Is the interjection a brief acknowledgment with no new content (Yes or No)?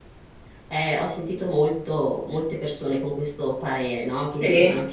Yes